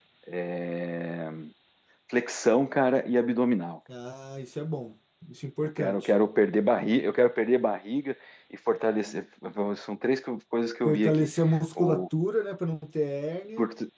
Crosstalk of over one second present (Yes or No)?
No